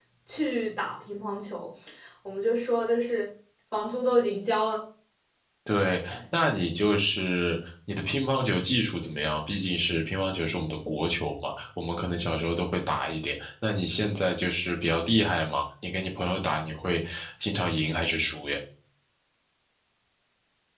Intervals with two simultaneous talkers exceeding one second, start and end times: none

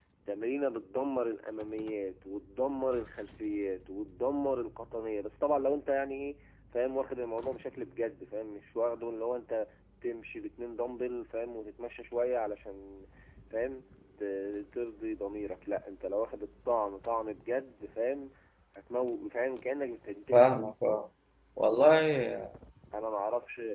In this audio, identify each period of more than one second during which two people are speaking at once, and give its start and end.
none

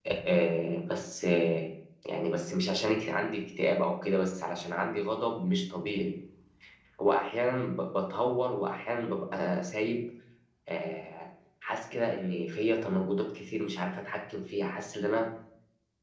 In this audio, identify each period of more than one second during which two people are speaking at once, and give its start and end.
none

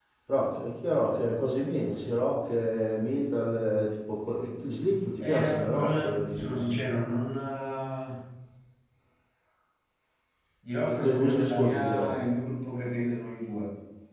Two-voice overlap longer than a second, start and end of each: 5.2-6.8, 10.9-12.1

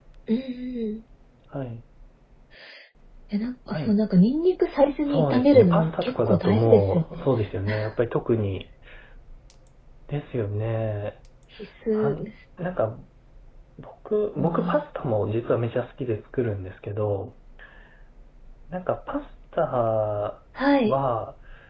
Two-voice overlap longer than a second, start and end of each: 5.0-7.2

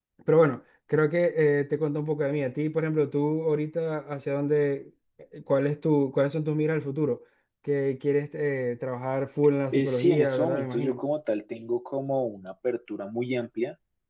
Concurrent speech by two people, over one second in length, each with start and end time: 9.7-11.0

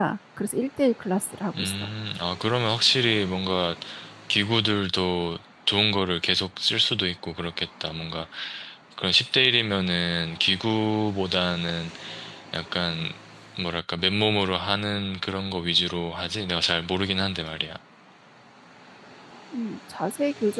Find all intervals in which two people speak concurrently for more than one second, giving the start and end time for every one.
none

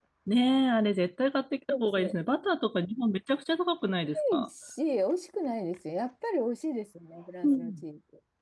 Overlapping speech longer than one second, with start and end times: none

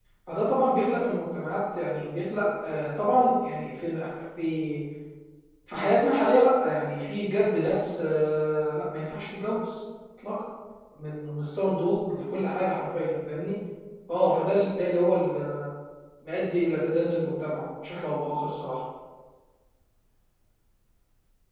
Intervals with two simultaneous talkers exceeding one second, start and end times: none

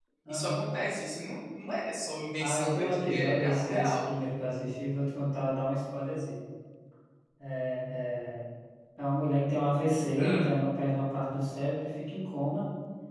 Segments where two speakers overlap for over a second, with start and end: 2.4-4.0

